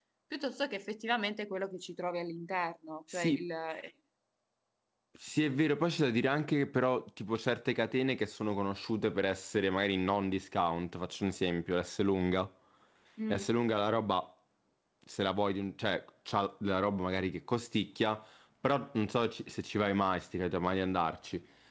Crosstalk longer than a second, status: none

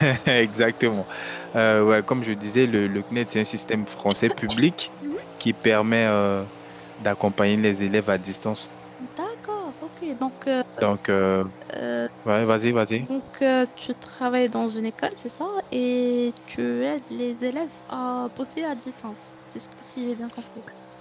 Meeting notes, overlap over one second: none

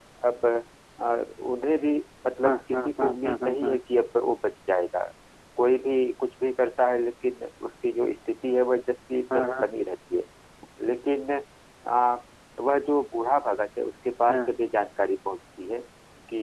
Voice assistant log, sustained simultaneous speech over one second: present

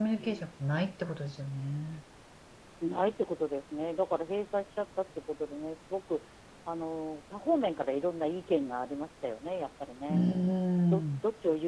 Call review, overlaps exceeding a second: none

